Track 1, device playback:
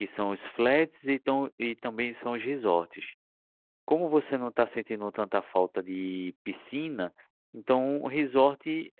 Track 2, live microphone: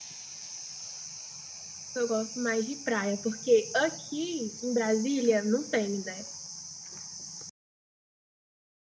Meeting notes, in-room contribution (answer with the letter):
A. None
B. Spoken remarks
B